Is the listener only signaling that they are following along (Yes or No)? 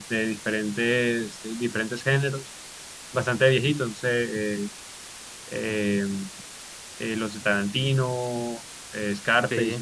Yes